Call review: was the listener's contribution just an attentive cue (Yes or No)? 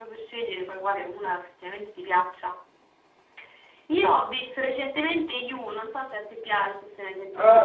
No